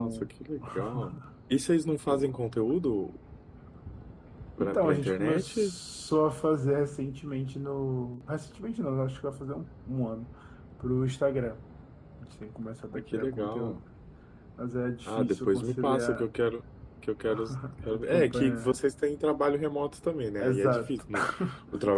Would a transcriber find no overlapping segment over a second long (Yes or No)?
No